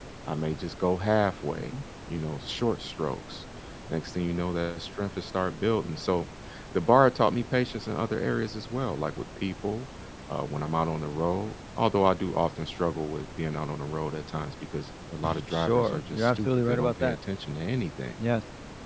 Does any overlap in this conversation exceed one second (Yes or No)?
Yes